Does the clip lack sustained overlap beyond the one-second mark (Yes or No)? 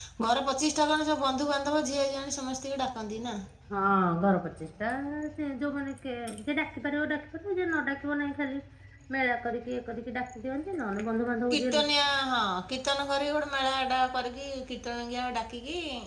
Yes